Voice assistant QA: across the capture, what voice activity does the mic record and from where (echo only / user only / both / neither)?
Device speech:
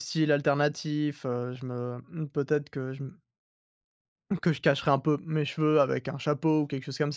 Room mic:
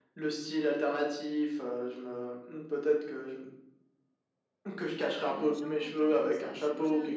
both